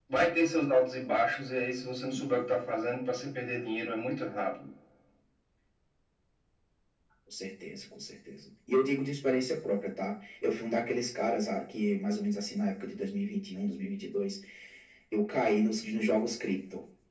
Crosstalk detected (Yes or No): No